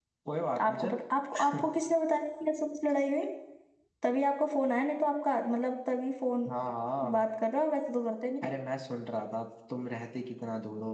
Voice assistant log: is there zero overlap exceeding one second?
Yes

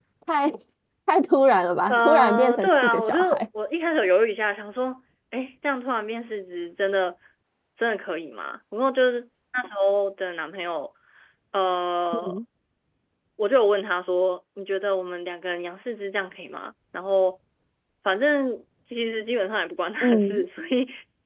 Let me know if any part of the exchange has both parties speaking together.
Yes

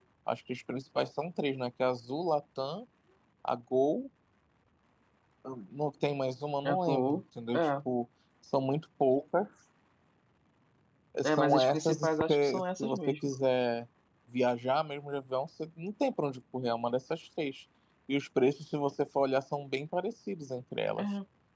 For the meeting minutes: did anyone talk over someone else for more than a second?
Yes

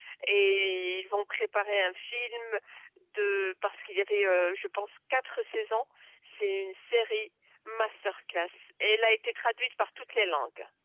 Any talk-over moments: No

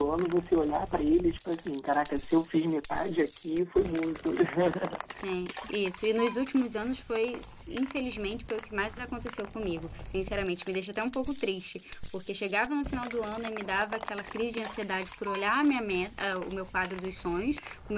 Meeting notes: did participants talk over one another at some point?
No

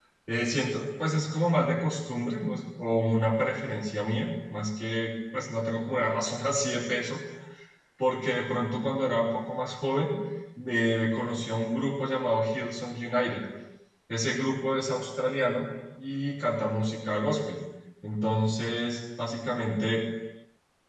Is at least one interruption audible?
No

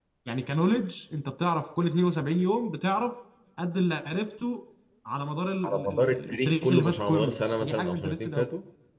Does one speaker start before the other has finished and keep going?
Yes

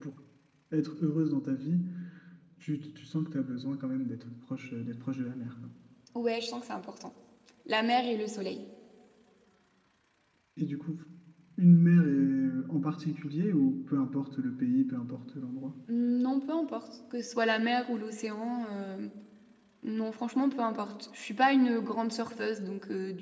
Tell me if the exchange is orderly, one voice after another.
Yes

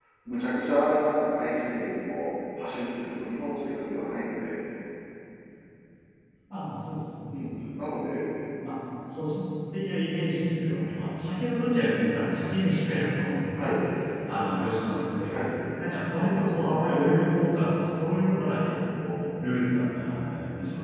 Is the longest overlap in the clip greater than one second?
No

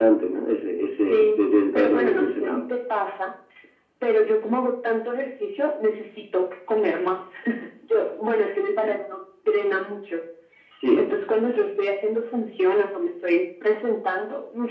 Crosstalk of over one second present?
Yes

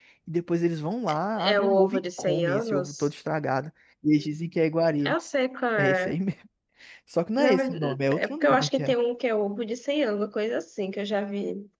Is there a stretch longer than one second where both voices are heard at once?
Yes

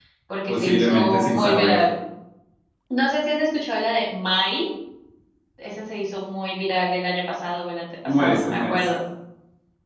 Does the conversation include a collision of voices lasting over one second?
Yes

